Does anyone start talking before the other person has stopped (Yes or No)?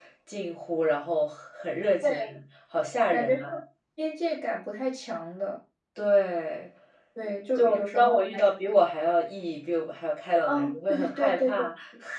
Yes